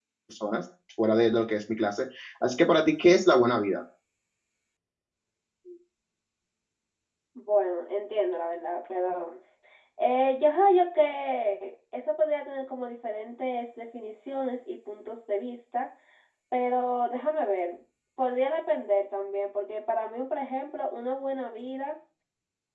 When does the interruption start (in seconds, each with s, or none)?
none